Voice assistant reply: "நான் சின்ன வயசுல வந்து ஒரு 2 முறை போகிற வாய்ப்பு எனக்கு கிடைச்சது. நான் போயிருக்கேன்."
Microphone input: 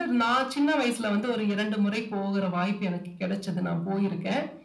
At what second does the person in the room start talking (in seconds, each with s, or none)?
none